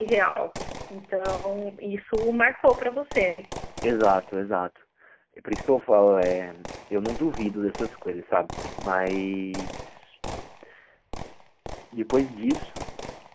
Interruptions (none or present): none